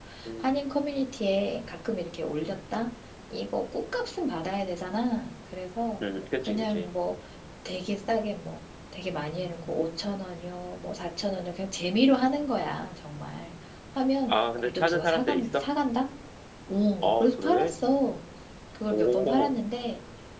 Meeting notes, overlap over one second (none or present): present